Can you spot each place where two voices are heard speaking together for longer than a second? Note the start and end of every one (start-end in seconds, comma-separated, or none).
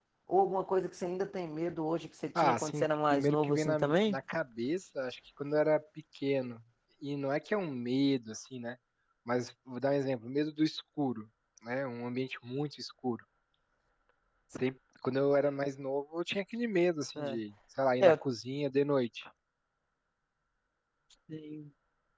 2.4-4.2